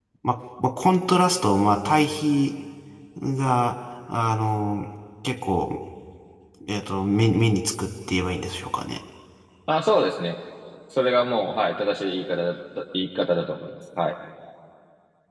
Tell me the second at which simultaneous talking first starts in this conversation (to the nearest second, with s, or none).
none